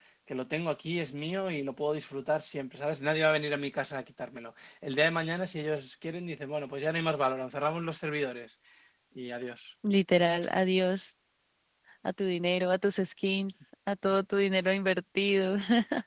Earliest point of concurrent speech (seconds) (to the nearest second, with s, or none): none